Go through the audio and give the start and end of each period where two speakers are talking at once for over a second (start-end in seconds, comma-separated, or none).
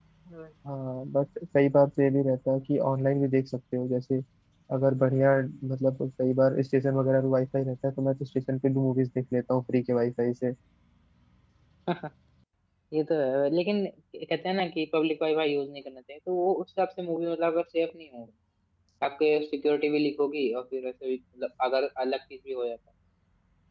none